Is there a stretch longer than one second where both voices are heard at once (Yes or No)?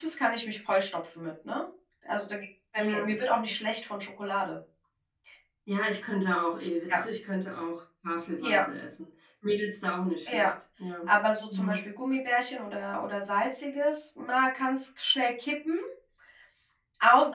No